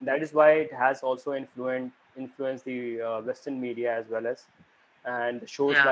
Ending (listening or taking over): listening